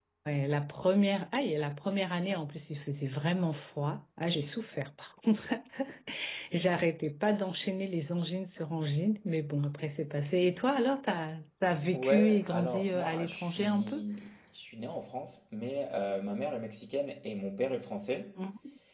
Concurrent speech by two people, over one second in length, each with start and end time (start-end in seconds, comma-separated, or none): 11.9-14.0